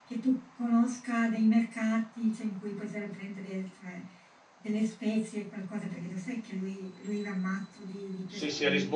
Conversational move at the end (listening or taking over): taking over